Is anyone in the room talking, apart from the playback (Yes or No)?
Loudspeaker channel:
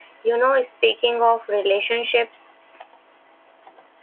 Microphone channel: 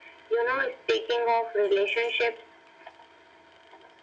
No